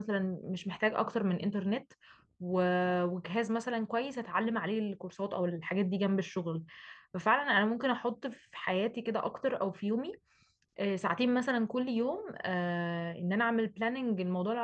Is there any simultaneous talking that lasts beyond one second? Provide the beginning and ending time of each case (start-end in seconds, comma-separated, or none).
none